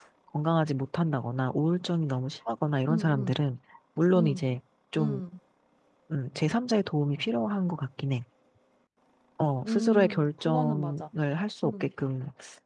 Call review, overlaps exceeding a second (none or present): present